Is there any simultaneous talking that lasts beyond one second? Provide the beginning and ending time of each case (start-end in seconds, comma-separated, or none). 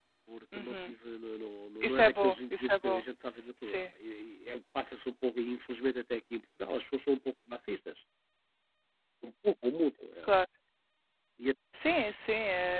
1.8-3.0